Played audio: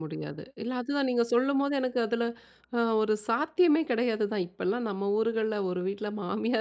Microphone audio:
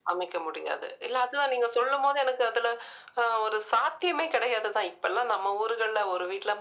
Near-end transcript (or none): none